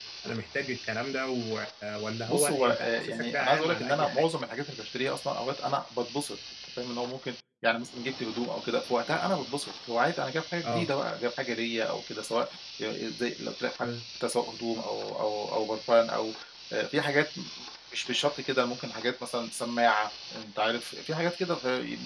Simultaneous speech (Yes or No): Yes